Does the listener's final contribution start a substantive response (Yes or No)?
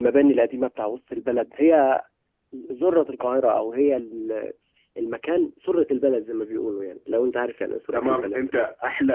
Yes